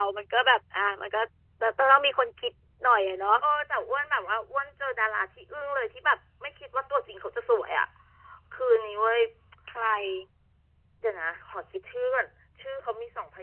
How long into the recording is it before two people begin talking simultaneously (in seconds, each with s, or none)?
none